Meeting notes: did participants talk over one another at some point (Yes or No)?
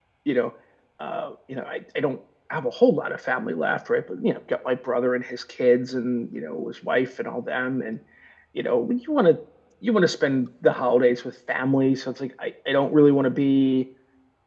No